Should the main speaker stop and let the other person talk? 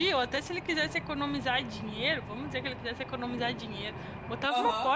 No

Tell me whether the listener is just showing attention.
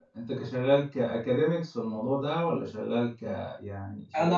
No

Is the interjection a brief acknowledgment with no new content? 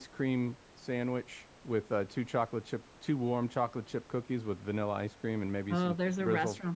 No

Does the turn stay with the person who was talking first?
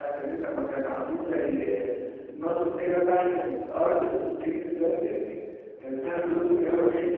No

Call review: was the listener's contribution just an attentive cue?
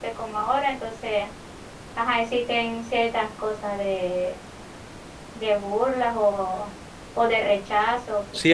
No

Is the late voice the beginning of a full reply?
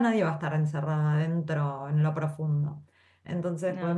No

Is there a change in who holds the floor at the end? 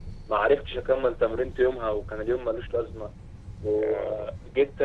No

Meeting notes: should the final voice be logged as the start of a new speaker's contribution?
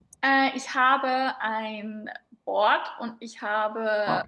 No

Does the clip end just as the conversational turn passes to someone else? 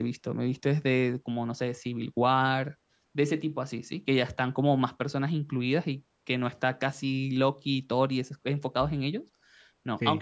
No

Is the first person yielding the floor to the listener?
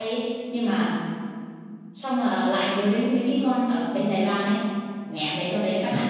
Yes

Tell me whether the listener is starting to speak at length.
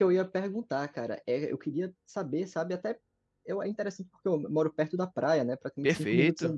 No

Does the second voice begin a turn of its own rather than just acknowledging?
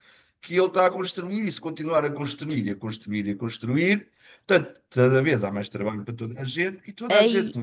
No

